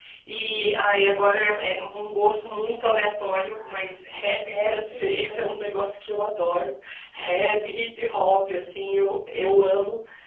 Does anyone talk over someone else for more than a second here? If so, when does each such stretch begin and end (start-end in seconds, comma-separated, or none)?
4.4-5.8